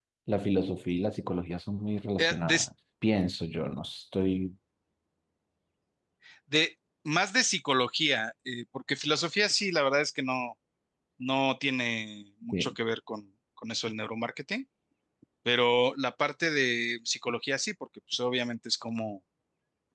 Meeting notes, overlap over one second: none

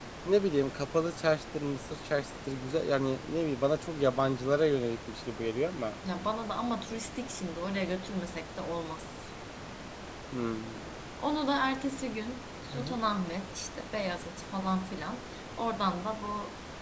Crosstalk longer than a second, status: none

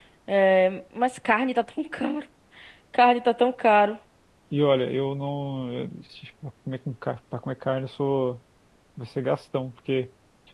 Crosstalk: none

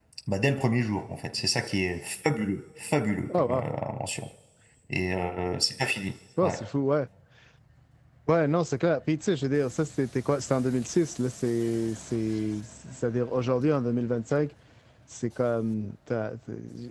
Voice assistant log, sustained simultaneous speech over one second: none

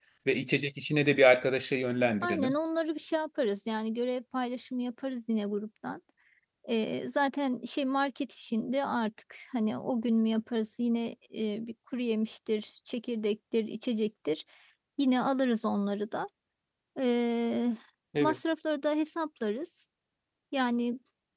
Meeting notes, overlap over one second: none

